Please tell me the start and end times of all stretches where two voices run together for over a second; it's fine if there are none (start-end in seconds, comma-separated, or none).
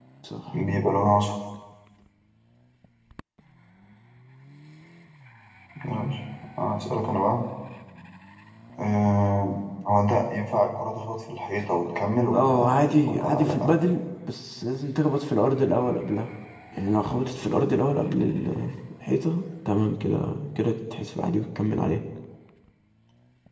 12.3-13.7